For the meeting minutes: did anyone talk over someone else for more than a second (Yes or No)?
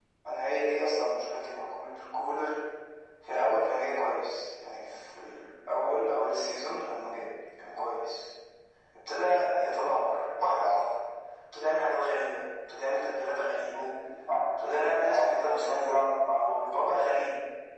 Yes